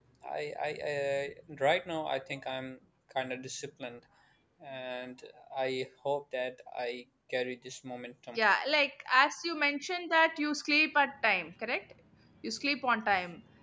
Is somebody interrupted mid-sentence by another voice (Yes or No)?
No